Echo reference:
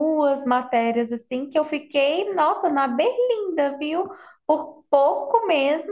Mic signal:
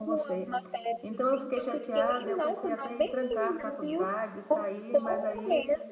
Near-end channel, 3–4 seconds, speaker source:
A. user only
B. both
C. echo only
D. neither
B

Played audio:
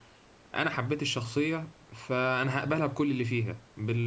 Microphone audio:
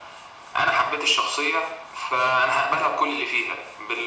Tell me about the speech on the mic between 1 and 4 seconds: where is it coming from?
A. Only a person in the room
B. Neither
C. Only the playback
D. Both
C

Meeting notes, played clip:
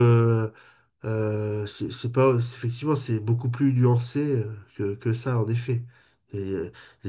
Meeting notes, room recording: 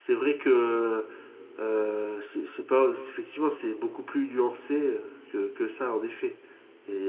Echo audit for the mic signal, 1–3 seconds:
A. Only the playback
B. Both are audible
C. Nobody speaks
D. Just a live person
A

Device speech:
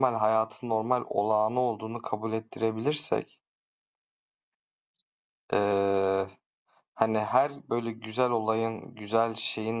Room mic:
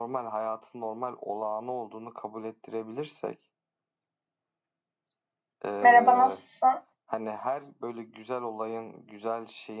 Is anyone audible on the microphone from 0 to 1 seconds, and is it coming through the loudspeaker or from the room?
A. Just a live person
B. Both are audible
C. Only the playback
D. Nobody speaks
C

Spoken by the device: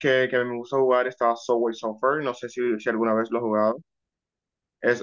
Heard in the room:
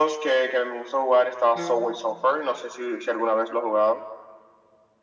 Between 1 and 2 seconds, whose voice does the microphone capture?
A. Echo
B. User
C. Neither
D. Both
D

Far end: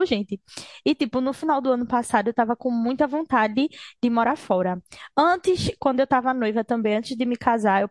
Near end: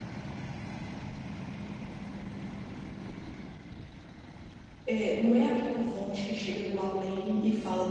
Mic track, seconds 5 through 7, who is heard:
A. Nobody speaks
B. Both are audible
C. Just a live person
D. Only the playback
C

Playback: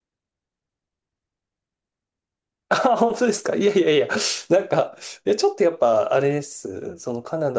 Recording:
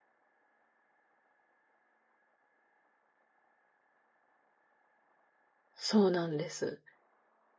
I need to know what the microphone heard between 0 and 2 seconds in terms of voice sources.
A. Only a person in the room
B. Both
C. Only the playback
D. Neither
D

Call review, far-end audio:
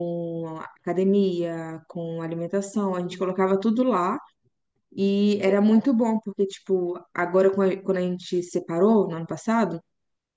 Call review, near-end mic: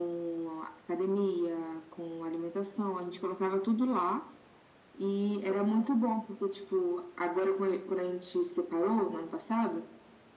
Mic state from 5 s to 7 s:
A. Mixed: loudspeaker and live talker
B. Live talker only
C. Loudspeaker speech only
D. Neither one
C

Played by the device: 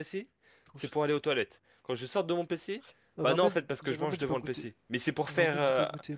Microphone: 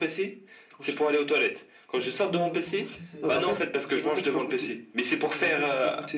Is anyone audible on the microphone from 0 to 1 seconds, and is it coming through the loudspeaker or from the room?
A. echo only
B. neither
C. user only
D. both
A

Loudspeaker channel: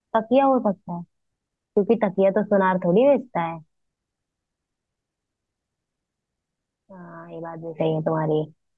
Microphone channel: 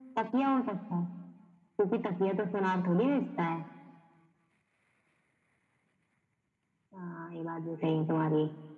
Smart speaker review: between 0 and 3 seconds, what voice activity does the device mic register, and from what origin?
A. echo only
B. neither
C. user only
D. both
A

